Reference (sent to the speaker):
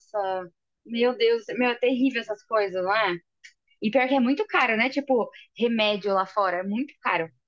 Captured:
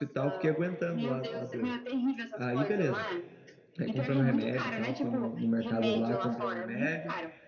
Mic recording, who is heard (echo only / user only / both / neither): both